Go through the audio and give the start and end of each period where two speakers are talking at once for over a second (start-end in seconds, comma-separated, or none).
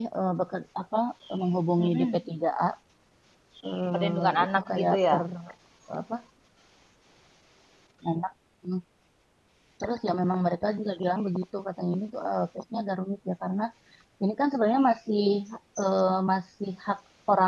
3.9-5.2